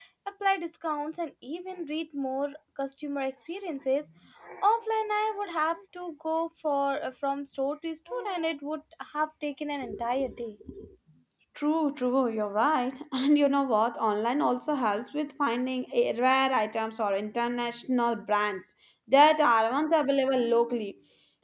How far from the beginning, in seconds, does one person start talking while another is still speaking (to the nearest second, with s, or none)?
none